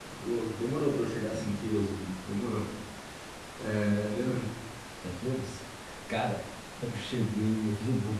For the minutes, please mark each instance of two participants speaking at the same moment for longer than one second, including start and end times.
none

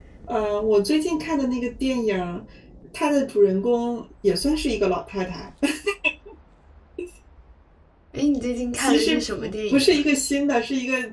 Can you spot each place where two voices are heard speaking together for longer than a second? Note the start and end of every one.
8.8-10.0

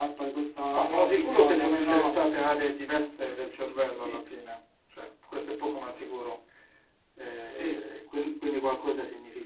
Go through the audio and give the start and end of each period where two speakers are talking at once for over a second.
0.7-2.2

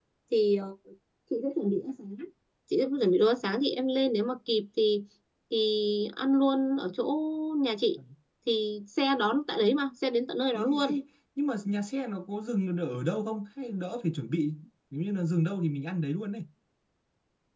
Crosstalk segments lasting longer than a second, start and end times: none

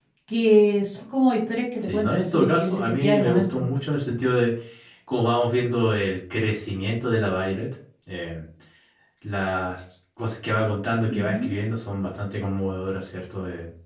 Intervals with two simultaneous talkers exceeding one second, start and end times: 1.8-3.6

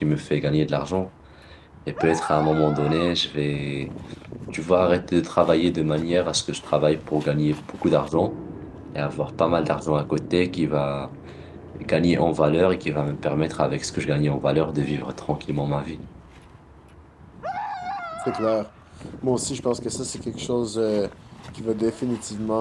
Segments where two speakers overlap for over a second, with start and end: none

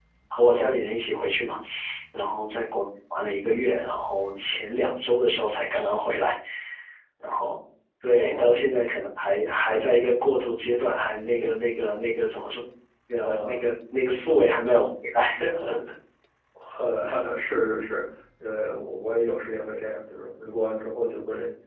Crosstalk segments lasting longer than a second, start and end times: none

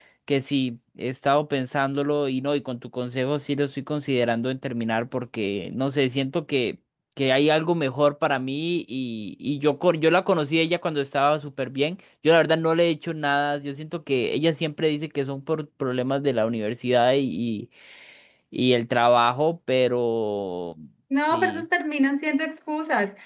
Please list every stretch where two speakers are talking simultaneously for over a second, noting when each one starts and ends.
none

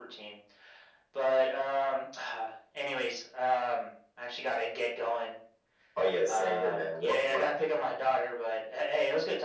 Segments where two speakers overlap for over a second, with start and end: 6.3-7.5

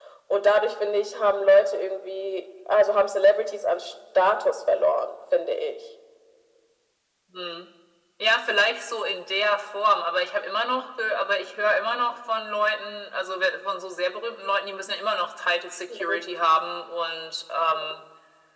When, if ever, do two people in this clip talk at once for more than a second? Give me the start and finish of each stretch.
none

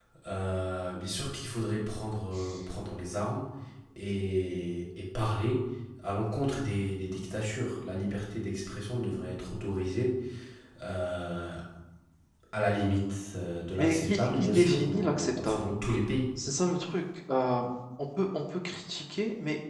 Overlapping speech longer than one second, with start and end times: 13.8-15.7

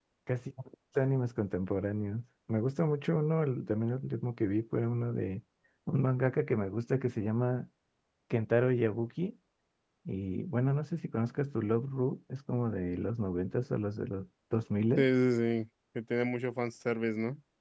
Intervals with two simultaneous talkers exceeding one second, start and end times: none

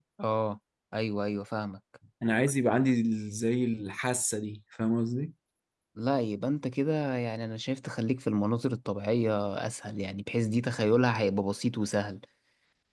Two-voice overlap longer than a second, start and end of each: none

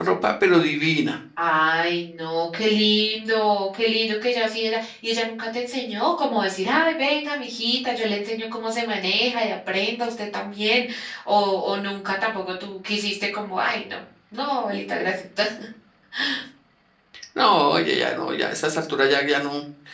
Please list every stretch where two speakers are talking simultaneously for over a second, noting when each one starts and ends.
none

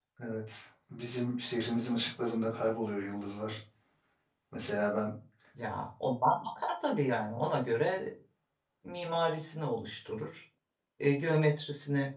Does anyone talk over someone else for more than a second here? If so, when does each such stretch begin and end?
none

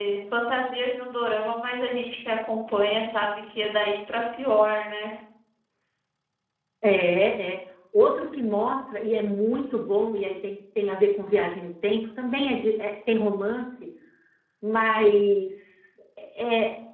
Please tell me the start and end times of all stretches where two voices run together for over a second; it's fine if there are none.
none

